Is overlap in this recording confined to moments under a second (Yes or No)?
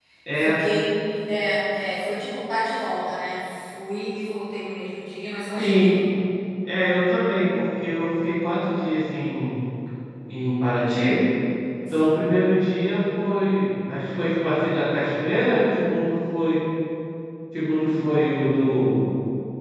Yes